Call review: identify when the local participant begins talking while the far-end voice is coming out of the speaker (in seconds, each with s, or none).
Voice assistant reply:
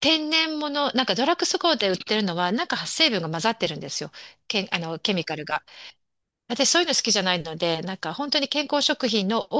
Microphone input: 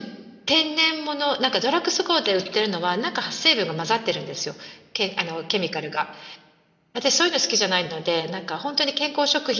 none